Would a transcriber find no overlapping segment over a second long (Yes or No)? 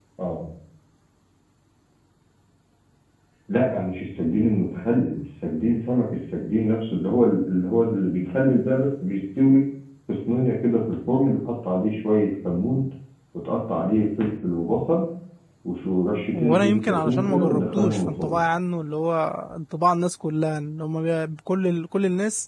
No